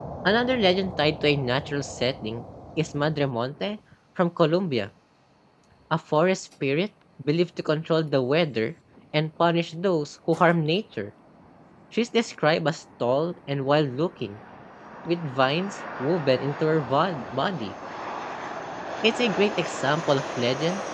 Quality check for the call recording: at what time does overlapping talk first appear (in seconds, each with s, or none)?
none